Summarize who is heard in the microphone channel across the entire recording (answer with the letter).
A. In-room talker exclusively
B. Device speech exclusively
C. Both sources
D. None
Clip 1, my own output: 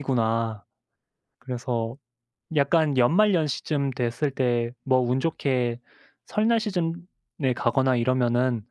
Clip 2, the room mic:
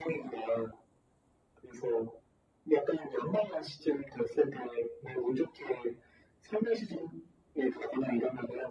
B